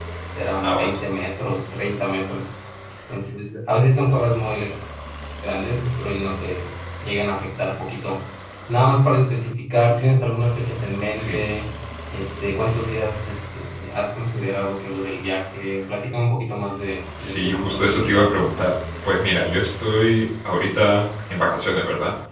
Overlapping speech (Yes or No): Yes